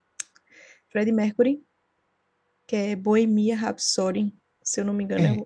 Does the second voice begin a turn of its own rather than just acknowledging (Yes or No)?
Yes